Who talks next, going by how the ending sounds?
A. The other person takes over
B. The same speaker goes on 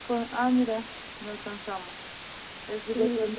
B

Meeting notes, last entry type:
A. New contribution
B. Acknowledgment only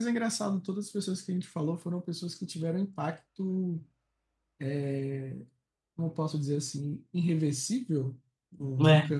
B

